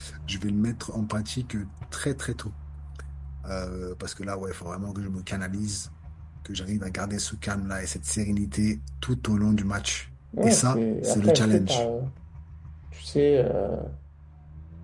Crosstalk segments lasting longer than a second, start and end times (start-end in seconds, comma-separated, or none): 10.4-11.8